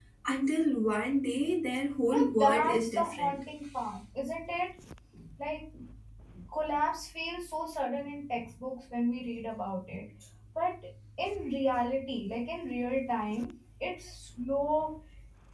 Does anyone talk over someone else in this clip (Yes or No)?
Yes